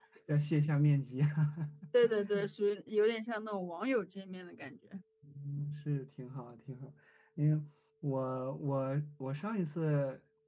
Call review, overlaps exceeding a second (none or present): none